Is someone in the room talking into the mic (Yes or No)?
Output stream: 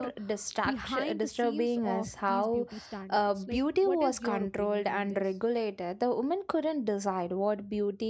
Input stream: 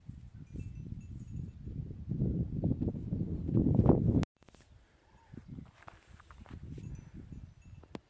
No